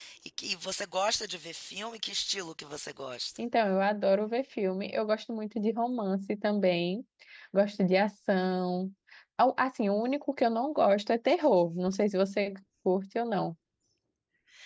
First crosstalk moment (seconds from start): none

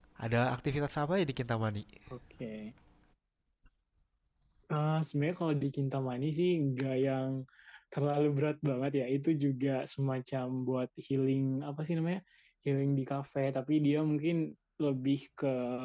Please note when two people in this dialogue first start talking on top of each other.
none

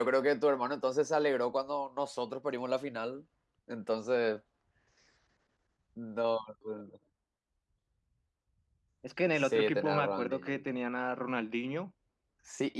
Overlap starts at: 9.4 s

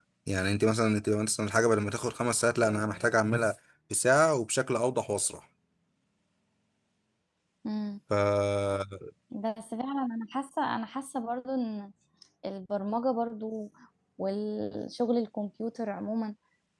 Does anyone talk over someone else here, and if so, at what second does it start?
none

